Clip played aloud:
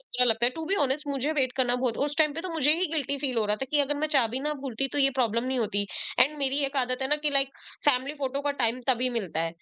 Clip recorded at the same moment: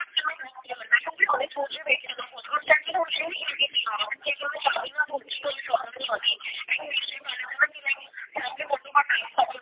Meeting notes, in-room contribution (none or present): none